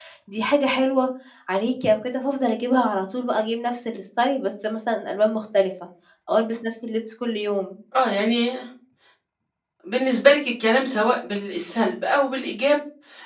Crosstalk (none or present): none